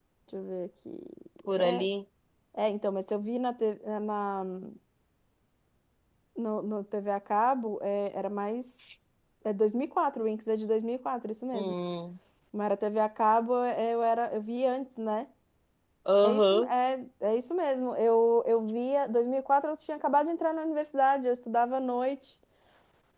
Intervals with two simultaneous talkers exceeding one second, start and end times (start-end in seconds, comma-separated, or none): none